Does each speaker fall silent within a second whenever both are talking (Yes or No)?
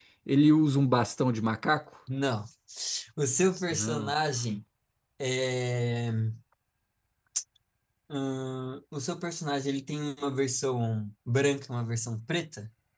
Yes